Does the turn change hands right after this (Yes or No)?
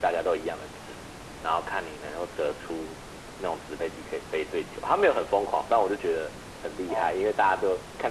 No